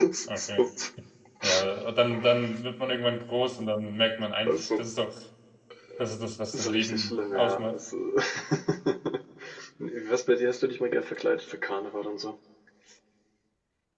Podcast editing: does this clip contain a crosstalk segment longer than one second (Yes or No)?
Yes